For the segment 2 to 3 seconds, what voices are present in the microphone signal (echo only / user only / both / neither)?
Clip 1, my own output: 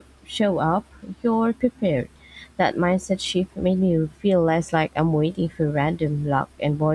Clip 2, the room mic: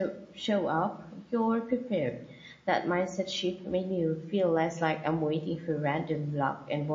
echo only